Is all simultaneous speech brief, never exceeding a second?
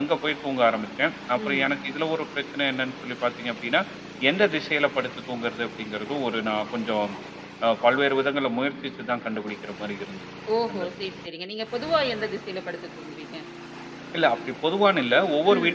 Yes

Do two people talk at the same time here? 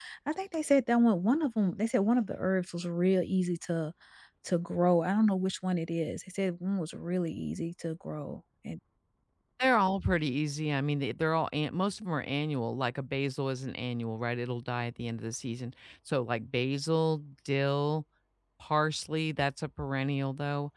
No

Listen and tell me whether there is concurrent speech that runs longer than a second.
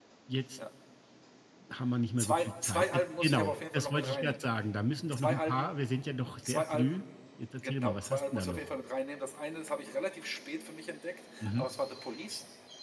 Yes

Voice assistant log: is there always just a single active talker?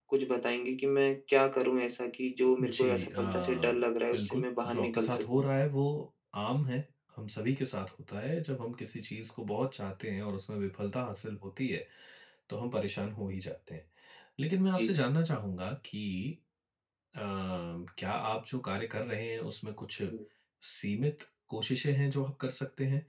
No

